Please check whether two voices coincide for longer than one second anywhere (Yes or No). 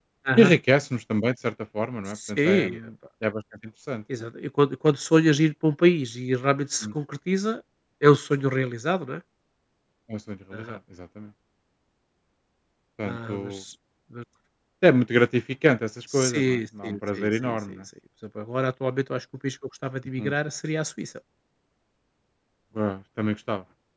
Yes